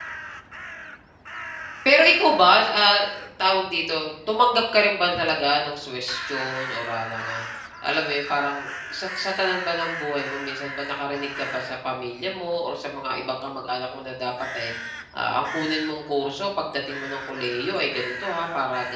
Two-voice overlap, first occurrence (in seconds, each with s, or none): none